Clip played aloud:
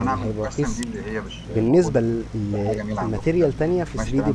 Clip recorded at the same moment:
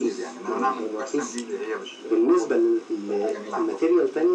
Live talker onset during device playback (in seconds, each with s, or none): none